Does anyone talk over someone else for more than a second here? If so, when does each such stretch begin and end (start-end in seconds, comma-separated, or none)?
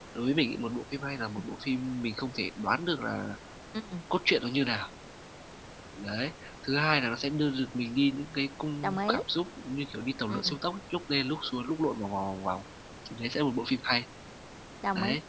none